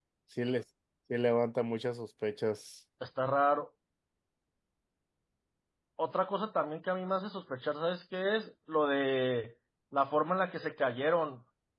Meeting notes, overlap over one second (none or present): none